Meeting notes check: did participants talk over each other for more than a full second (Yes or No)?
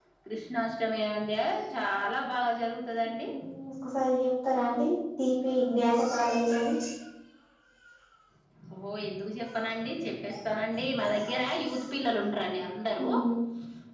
No